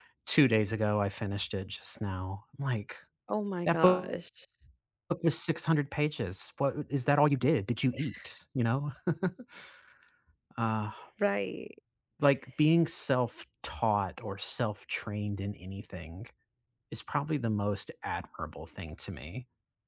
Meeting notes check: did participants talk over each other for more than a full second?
No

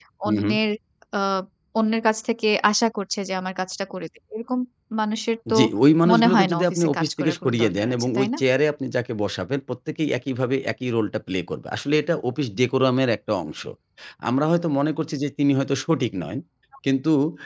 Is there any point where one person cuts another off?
Yes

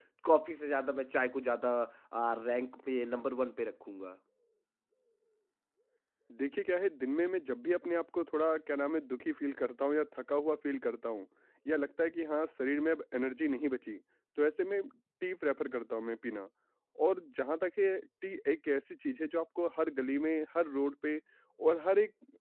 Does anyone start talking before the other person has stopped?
No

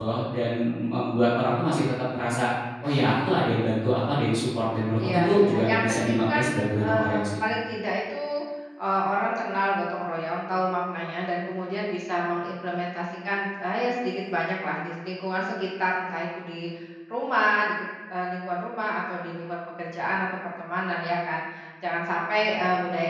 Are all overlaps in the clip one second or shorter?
No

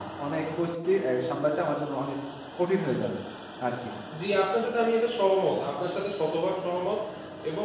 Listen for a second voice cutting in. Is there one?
No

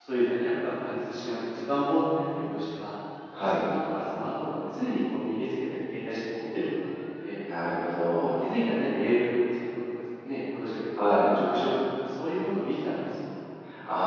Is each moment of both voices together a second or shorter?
Yes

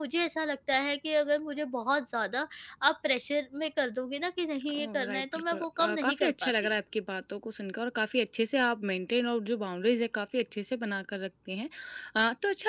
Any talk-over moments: Yes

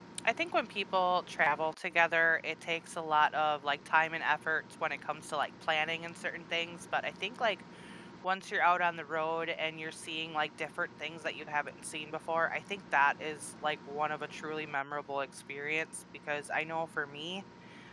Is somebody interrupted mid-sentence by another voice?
No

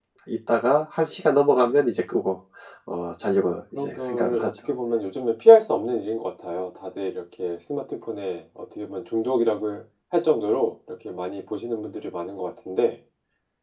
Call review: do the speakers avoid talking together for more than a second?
No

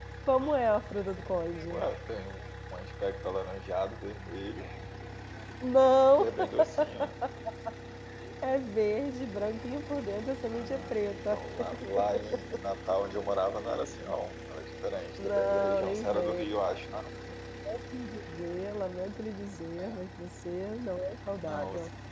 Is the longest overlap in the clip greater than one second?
Yes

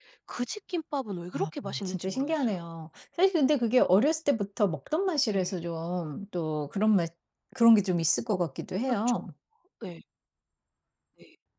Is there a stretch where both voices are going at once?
Yes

